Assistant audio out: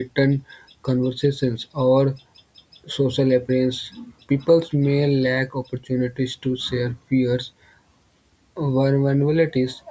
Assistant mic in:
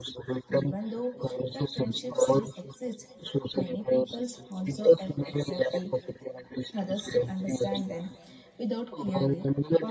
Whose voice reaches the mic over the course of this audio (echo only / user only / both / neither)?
both